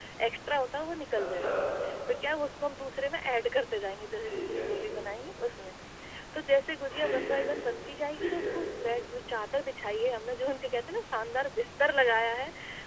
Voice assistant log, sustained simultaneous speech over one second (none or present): none